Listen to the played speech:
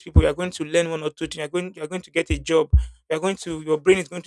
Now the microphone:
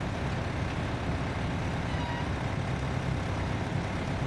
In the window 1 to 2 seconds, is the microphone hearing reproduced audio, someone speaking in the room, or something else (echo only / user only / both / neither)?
neither